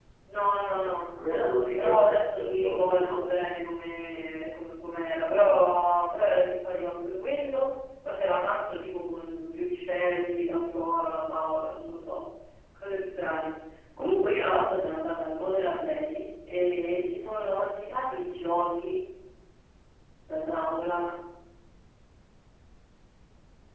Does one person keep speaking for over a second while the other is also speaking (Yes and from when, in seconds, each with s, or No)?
Yes, from 1.8 s